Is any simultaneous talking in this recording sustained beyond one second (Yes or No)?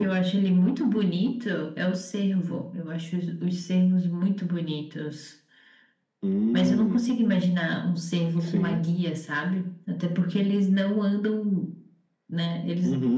No